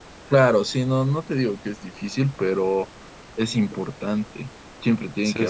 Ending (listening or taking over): listening